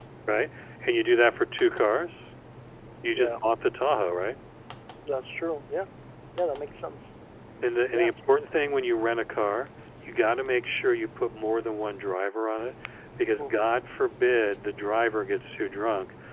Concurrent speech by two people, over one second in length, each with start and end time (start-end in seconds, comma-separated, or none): none